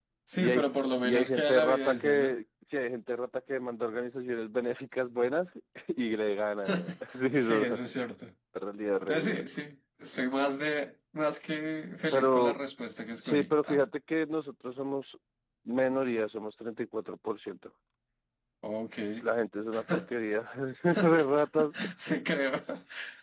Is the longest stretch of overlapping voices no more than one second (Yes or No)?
No